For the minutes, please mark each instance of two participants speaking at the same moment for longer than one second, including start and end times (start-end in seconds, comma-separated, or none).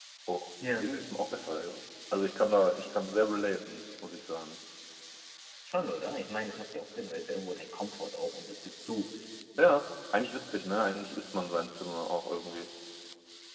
none